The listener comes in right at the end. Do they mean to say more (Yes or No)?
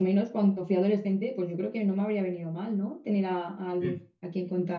No